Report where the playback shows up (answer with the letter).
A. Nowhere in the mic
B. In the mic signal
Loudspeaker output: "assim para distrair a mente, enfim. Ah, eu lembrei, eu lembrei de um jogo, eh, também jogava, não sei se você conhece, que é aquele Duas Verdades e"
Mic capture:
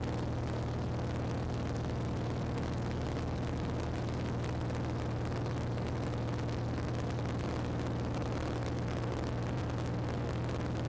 A